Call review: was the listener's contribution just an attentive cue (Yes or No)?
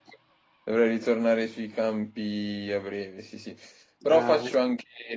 Yes